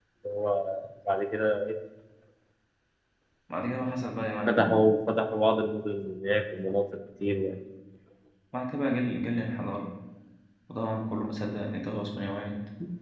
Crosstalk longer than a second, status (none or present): none